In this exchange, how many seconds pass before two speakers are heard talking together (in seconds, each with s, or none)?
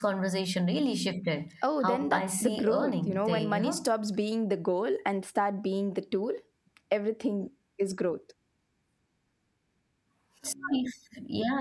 1.6 s